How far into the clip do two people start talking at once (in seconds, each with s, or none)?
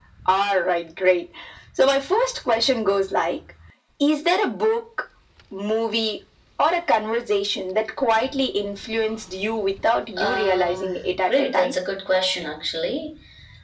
10.2 s